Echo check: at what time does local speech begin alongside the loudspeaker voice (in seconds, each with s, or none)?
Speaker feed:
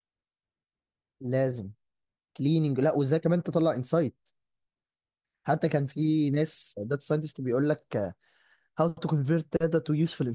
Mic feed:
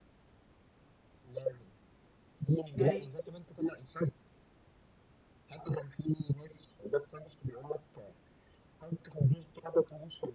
2.7 s